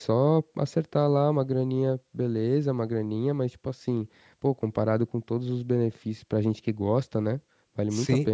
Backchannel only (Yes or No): No